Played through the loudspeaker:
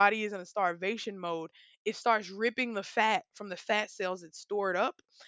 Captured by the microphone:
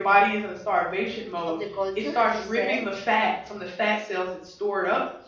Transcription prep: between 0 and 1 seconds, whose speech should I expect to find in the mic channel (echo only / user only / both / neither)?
echo only